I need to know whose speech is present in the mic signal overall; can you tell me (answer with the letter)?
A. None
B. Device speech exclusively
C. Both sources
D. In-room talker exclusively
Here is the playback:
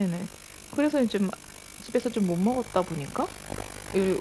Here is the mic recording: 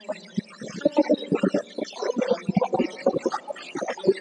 B